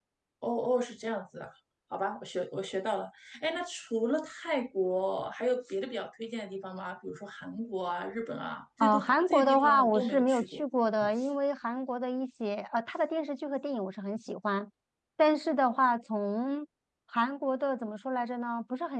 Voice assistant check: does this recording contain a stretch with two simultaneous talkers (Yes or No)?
Yes